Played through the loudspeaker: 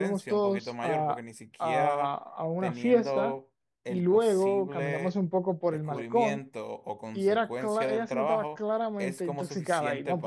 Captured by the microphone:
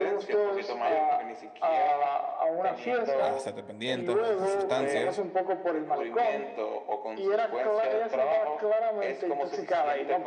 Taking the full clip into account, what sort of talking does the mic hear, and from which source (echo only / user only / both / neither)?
both